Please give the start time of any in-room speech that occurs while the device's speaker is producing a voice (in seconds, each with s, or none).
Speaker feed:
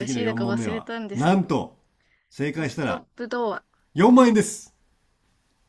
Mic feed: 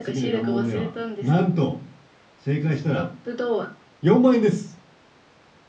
none